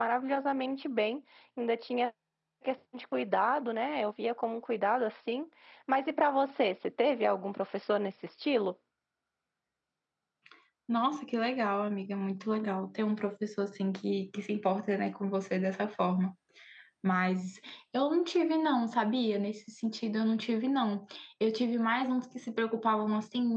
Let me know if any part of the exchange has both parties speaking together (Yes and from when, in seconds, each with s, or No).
No